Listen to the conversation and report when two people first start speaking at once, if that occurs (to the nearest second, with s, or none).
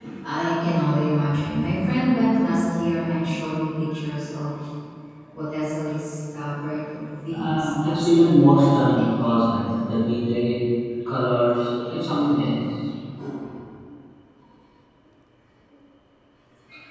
7 s